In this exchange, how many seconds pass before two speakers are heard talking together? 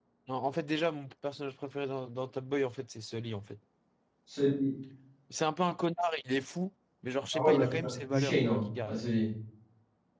7.3 s

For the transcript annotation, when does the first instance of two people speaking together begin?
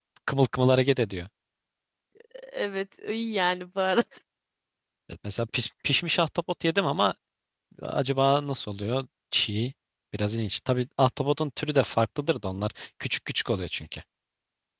none

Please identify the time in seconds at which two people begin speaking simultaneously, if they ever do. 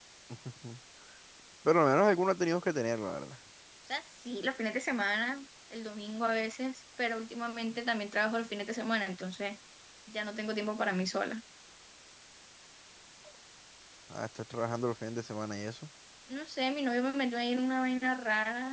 none

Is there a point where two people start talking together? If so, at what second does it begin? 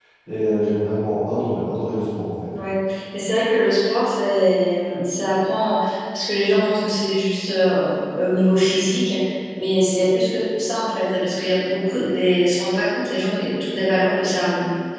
none

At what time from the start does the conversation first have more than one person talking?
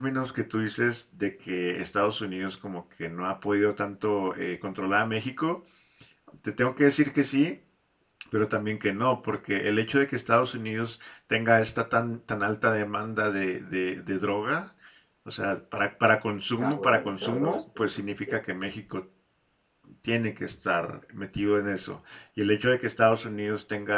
16.6 s

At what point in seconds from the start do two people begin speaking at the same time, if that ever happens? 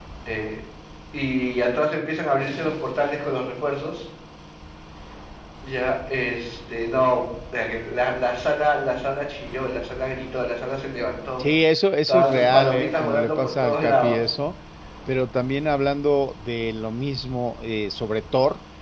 12.1 s

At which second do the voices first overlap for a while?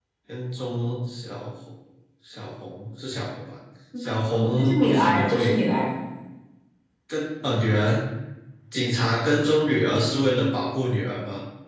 4.4 s

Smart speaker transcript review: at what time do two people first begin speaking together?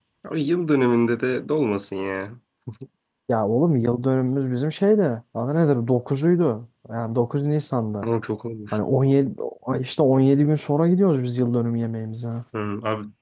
none

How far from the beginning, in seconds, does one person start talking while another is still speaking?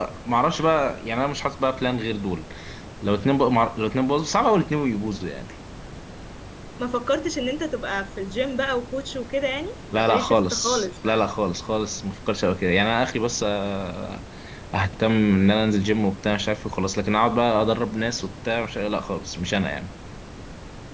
9.9 s

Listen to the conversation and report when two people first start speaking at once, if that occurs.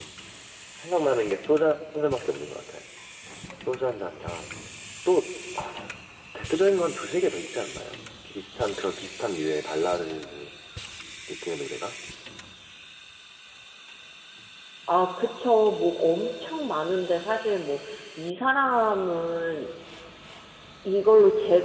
none

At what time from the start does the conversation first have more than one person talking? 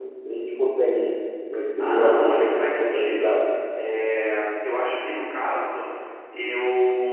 1.8 s

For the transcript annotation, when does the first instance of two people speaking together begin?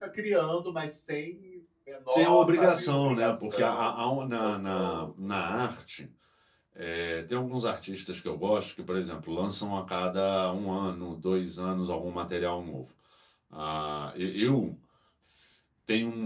2.1 s

